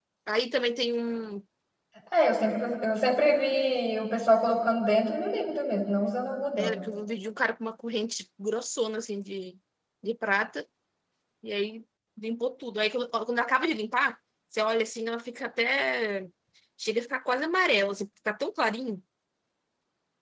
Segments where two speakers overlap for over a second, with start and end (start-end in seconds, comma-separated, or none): none